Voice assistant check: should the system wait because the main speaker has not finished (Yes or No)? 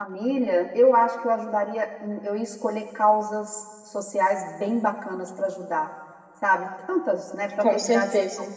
Yes